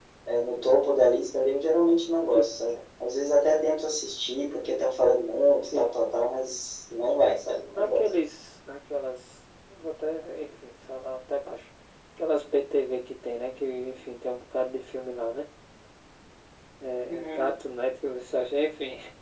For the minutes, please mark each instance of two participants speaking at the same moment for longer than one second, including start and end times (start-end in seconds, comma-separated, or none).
none